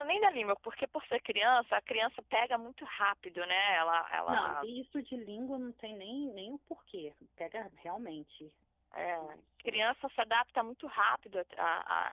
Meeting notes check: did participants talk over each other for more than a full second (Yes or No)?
No